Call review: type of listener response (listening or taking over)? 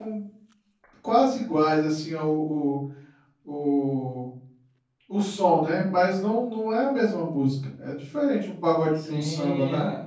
taking over